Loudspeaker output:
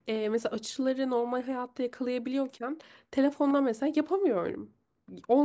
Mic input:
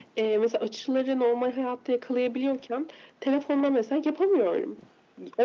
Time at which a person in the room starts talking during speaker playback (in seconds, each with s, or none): none